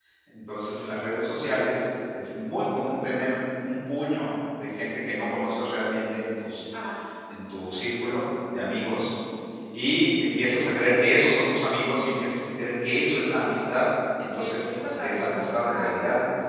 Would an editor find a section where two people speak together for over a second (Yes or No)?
Yes